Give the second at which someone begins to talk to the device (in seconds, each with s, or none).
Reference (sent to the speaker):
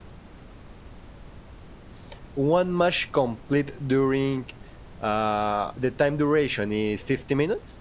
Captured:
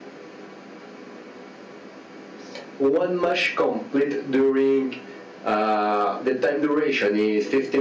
none